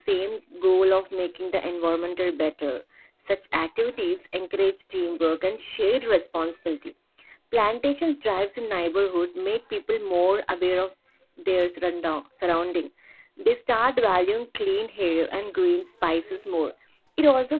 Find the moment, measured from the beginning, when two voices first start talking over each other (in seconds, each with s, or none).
none